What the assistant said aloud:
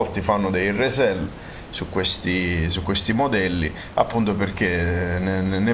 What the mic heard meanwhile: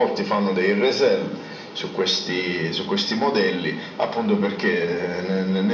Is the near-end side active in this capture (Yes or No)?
No